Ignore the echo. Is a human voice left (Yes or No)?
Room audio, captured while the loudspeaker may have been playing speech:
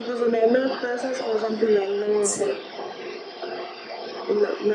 Yes